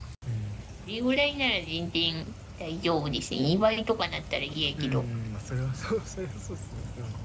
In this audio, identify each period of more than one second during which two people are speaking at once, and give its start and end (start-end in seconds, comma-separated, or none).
none